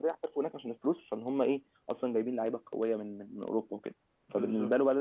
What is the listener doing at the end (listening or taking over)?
listening